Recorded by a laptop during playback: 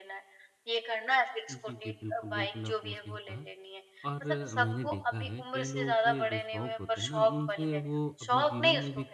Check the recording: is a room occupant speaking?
Yes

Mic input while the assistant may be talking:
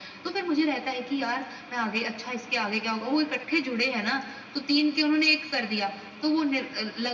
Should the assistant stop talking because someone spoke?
No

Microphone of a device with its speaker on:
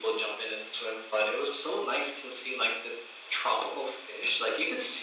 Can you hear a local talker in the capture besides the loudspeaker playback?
No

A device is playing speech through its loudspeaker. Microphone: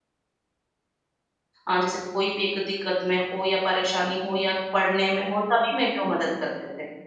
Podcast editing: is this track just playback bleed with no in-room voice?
No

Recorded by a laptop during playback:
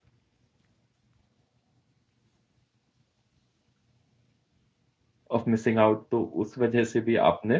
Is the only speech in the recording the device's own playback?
No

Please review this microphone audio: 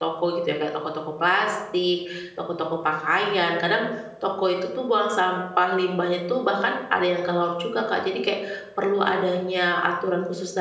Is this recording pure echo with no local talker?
No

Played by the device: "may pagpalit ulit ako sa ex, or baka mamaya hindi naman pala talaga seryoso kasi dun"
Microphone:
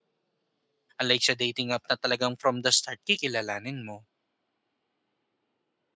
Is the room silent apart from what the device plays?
No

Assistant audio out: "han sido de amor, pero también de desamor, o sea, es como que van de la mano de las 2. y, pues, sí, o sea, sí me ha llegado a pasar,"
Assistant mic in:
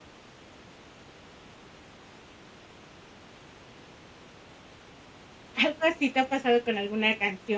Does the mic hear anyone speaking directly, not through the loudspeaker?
Yes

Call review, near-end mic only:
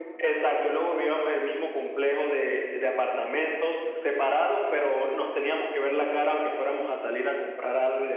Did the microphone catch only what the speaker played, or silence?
Yes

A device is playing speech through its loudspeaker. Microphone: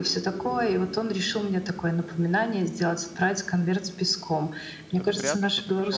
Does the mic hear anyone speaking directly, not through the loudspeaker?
Yes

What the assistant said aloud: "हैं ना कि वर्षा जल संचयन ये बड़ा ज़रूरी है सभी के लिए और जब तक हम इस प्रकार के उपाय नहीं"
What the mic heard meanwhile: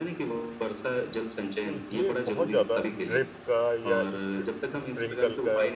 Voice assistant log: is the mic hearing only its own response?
No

